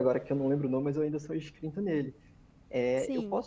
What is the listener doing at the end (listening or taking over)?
listening